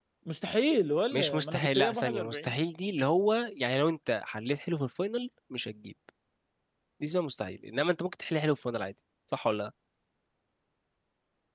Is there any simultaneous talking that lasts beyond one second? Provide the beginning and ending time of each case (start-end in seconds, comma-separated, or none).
1.1-2.5